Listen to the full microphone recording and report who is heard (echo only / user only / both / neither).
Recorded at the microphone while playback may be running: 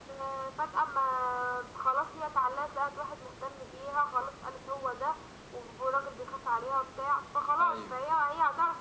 both